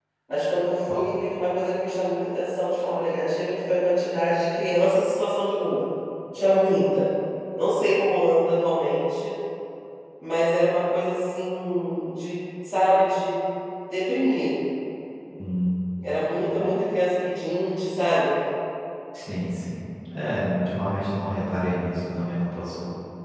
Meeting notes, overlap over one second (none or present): none